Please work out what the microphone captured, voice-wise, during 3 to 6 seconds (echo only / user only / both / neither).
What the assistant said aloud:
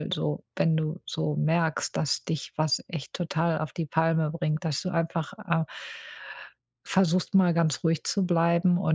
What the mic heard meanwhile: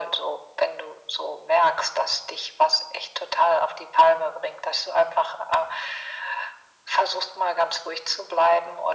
echo only